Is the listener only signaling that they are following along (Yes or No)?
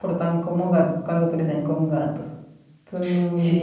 No